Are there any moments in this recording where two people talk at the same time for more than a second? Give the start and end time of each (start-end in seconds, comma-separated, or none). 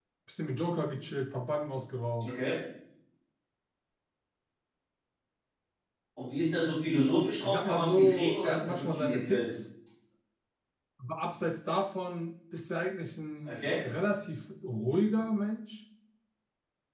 7.4-9.5